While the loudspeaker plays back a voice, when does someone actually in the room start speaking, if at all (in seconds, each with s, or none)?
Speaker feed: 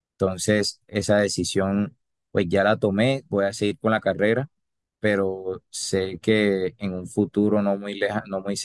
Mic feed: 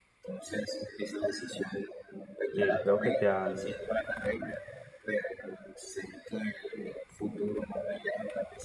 2.6 s